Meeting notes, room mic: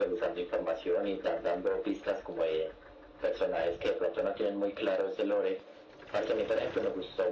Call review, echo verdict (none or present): present